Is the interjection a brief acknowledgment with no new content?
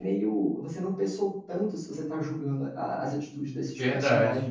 No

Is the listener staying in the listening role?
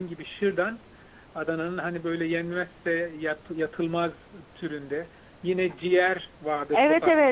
No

